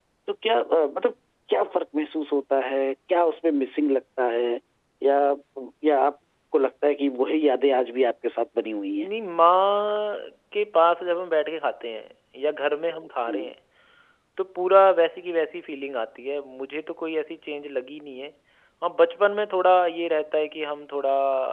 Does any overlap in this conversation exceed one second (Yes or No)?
No